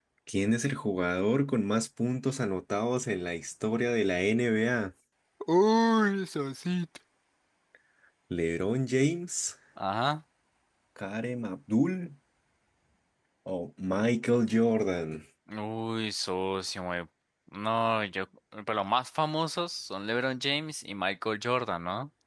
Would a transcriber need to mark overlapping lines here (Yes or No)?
No